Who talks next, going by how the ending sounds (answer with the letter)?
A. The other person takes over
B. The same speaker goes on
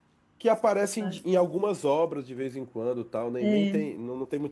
B